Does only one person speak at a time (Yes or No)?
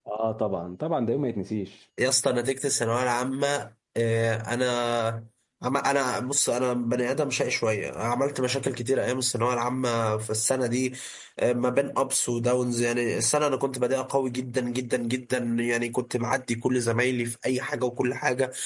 Yes